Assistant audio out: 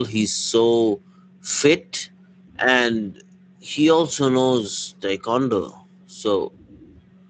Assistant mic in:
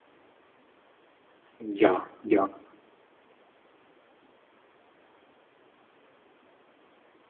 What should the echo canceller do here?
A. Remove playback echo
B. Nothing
B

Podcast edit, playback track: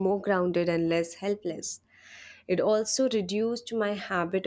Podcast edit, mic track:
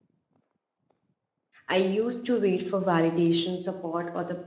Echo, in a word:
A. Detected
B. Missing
B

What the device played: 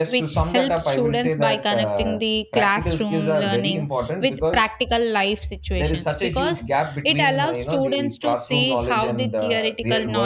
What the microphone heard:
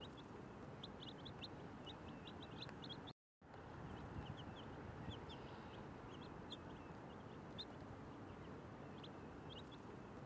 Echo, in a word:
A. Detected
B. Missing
B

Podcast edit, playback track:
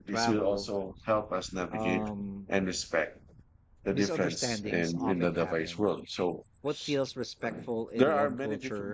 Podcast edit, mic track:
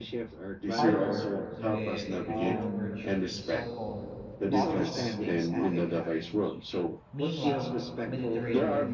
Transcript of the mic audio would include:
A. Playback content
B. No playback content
A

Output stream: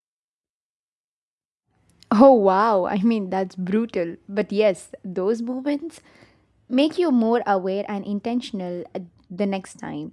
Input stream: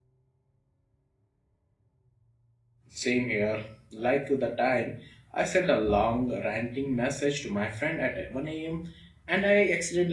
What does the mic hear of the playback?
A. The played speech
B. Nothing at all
B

